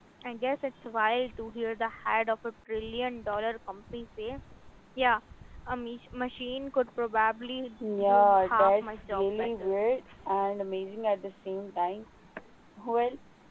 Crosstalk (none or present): present